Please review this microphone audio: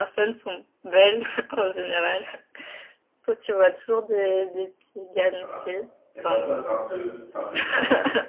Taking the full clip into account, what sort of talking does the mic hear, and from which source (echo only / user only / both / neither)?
both